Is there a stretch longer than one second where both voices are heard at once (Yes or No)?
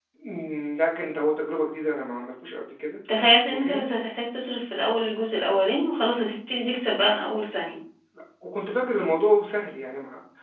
No